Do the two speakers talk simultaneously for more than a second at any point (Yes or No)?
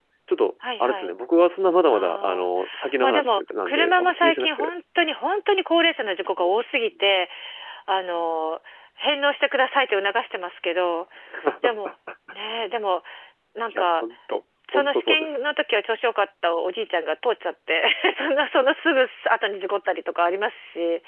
Yes